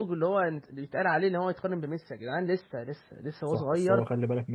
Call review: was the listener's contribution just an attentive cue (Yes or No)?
No